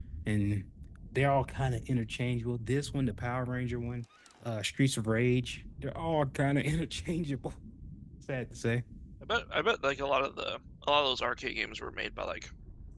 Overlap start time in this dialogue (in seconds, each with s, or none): none